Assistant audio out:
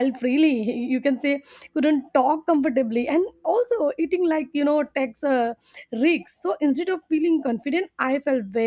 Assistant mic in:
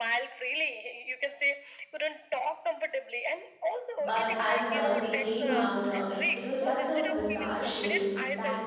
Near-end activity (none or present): present